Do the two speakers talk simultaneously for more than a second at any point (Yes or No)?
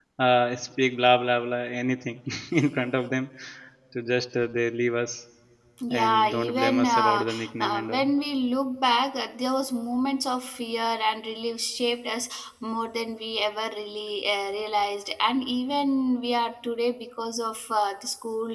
Yes